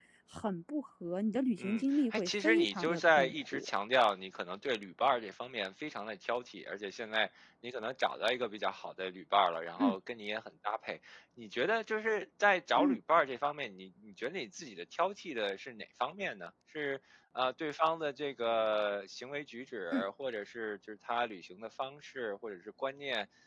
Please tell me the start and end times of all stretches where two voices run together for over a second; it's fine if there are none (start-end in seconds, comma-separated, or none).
1.6-3.7